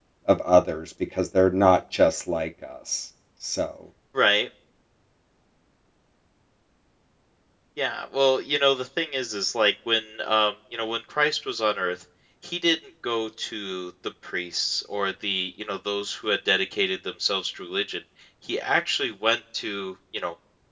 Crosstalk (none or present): none